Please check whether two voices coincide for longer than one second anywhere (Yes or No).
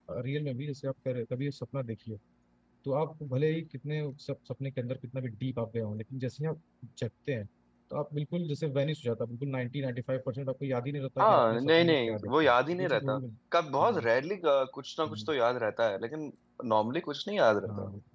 Yes